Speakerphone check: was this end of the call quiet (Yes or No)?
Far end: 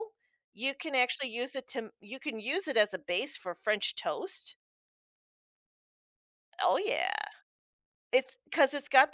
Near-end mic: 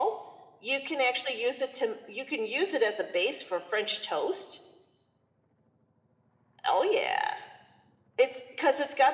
Yes